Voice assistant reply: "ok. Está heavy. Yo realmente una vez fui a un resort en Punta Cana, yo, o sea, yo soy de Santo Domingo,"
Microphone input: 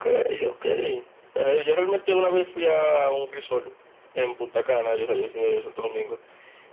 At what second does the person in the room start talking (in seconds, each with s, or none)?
none